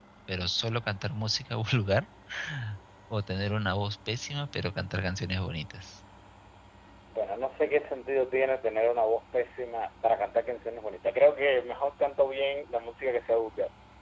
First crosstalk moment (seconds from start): none

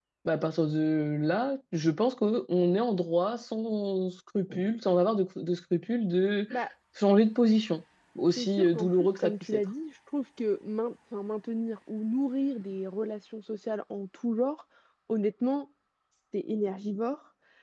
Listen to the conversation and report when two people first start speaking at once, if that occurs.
8.4 s

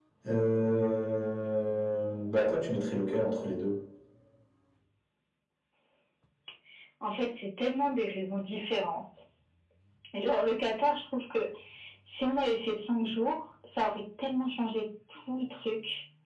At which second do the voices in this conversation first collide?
none

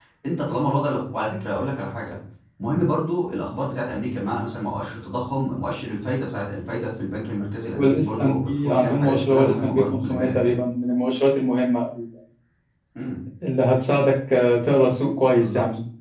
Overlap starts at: 7.7 s

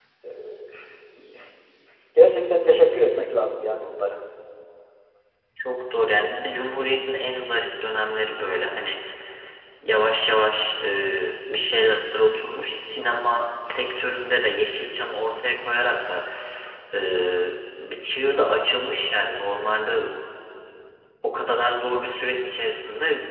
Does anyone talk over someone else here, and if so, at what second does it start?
none

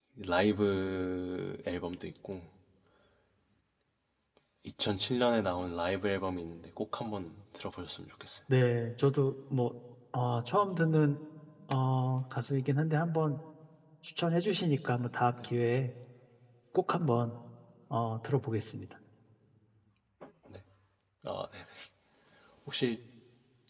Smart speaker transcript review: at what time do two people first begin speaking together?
none

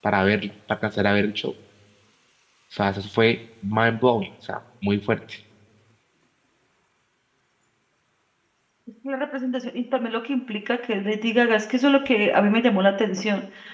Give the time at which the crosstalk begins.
none

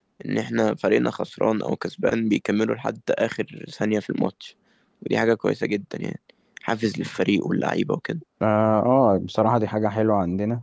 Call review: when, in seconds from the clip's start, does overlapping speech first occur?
none

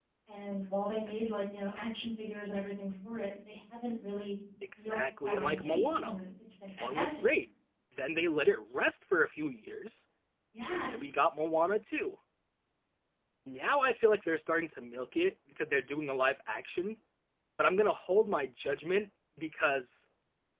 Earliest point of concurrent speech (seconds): 4.8 s

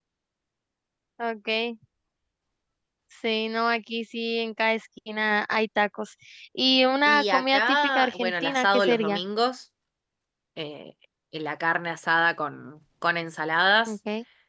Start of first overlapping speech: 7.1 s

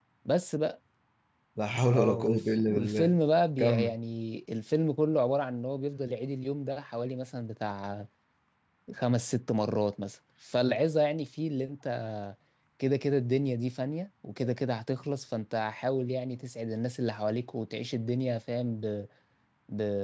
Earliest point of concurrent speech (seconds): 1.9 s

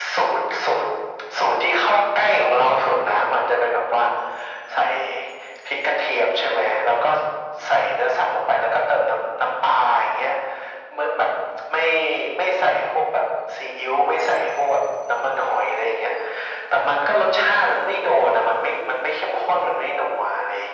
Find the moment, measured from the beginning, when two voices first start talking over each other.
none

